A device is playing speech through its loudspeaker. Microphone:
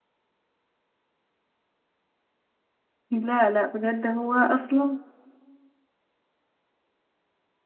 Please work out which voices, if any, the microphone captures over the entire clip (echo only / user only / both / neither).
user only